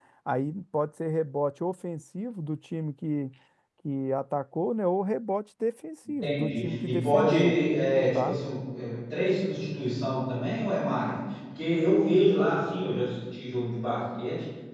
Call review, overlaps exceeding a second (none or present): present